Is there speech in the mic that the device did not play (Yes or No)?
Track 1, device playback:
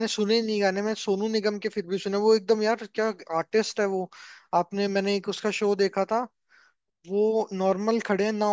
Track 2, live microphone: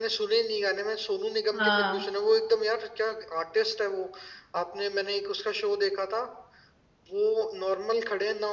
Yes